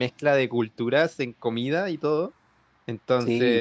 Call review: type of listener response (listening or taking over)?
listening